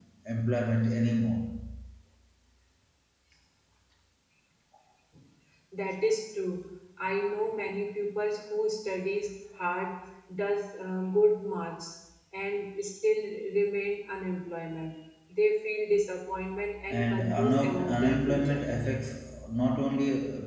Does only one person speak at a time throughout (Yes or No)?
No